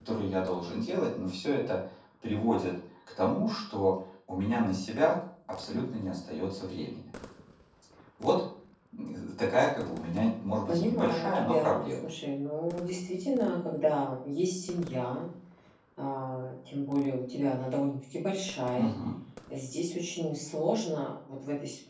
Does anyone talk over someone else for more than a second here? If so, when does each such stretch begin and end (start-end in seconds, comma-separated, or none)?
10.7-12.1